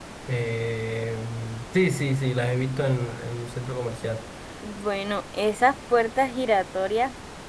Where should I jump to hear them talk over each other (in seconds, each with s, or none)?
none